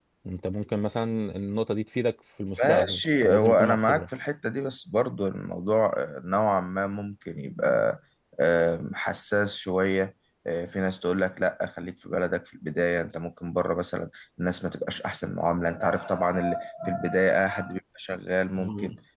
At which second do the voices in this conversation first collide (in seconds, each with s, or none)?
2.7 s